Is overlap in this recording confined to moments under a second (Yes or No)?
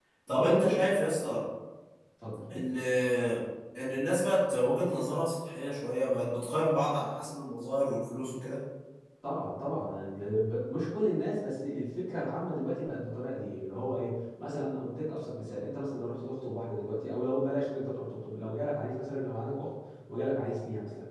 Yes